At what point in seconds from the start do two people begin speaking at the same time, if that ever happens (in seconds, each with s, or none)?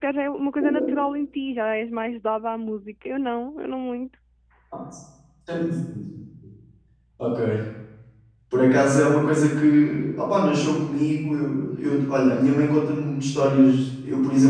none